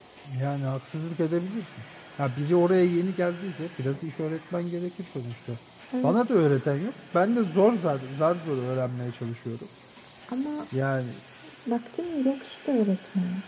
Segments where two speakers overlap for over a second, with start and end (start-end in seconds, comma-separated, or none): none